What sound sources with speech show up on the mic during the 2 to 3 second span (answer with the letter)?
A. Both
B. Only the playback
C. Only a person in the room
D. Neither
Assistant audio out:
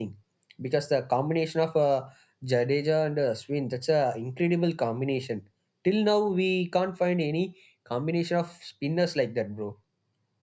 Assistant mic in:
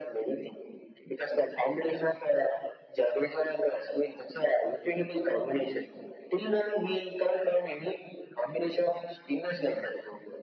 B